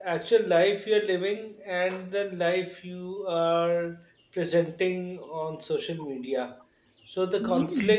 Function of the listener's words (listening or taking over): listening